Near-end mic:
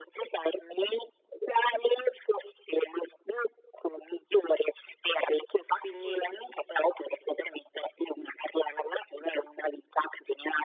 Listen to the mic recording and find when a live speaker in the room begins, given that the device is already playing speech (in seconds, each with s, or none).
5.8 s